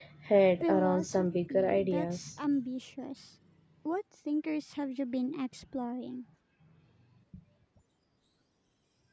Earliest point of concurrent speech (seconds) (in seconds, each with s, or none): 0.6 s